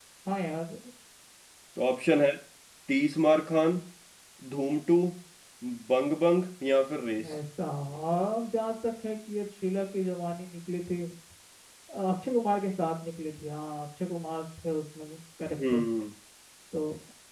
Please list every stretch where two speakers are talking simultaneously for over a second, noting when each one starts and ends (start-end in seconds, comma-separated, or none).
none